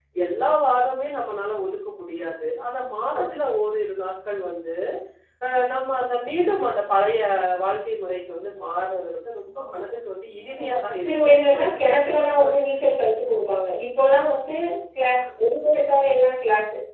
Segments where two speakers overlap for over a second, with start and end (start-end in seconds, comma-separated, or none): 10.6-12.2